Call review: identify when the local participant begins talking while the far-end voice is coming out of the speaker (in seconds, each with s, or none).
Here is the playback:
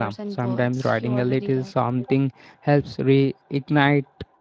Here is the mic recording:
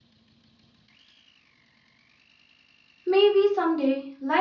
3.0 s